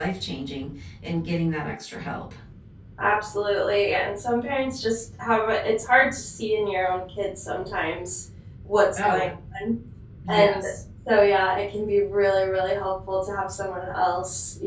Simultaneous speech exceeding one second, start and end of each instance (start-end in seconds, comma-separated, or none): none